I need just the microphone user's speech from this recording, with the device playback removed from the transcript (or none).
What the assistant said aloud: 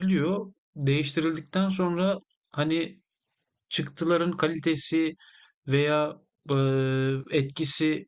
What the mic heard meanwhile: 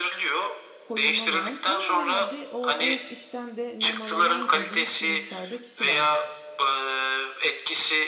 koyulmalı ama herhalde o, o işten de nemalanan e, büyük bir miktarda kişi var.